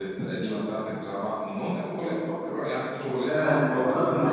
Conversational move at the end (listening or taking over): taking over